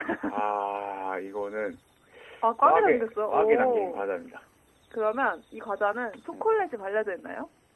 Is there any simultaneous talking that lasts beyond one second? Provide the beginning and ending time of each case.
2.6-4.0

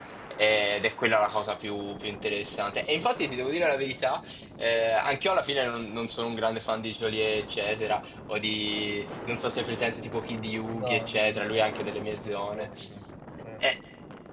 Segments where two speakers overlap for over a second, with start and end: 10.8-12.7

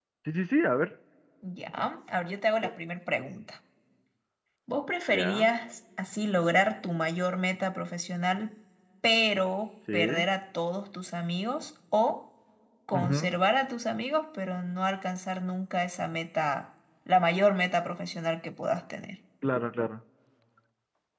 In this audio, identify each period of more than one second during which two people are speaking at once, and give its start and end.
none

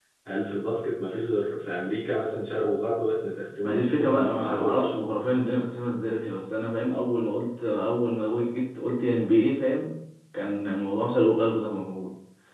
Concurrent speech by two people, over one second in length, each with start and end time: 3.6-4.9

